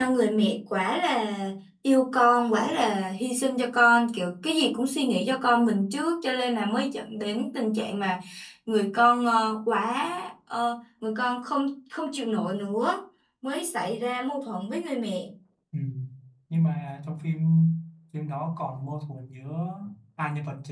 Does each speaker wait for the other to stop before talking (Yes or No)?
Yes